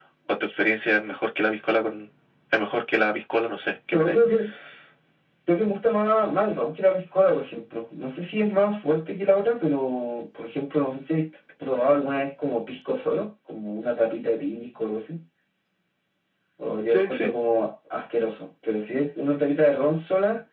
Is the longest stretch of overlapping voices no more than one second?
Yes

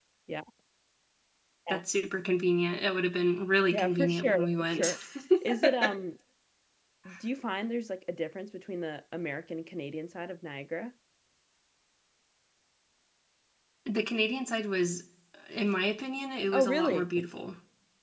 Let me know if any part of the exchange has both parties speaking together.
Yes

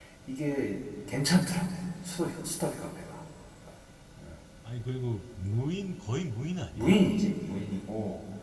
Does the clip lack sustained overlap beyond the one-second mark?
Yes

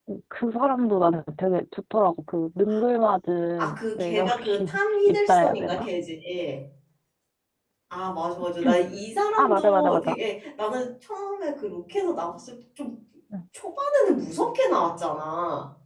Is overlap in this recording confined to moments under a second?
No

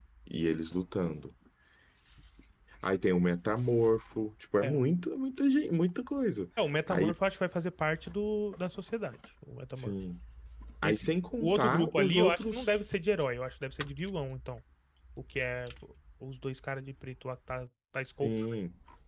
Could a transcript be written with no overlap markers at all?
No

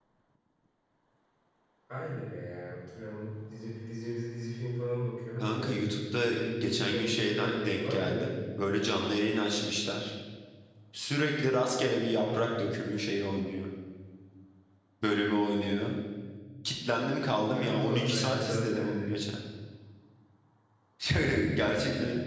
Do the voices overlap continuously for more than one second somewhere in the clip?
Yes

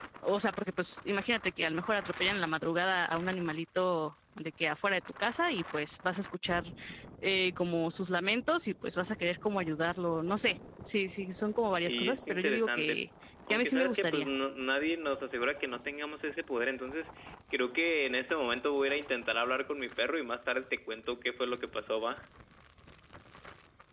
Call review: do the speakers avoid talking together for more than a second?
No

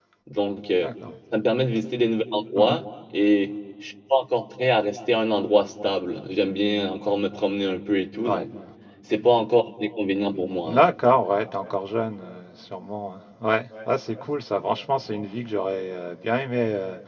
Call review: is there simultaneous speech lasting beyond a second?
No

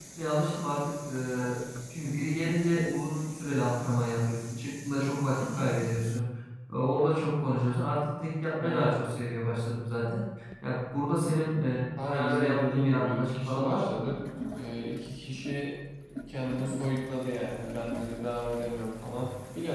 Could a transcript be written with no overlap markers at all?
No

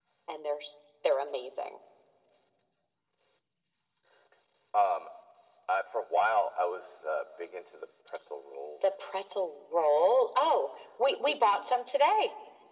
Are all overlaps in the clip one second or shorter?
Yes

